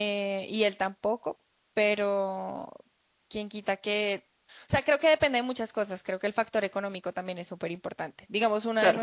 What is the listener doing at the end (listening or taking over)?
listening